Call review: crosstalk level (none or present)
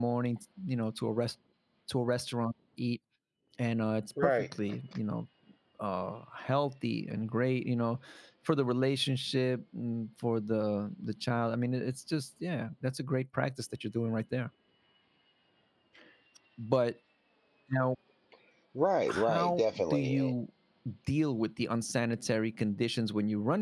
present